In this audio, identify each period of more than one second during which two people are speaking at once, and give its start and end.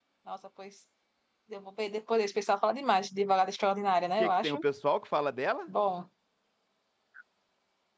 none

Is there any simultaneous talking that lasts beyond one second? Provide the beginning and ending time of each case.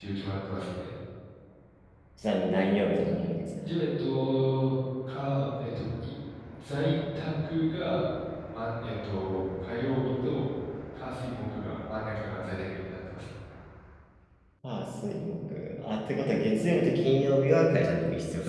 none

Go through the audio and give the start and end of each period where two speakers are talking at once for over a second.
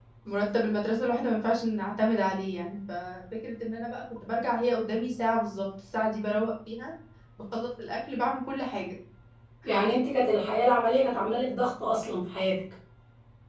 none

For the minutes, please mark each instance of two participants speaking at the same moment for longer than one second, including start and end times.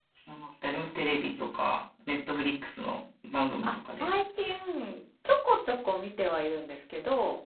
none

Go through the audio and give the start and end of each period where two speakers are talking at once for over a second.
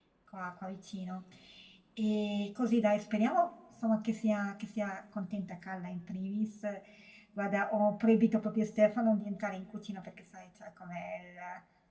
none

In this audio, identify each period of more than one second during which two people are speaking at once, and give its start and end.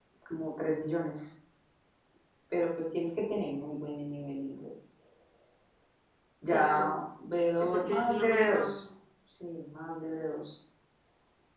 7.6-8.8

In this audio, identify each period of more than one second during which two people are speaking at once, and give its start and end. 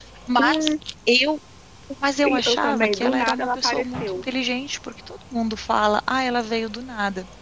2.2-4.2

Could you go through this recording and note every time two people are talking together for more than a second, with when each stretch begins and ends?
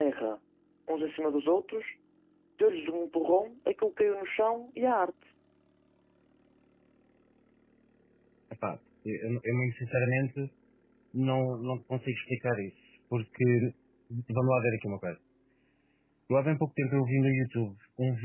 none

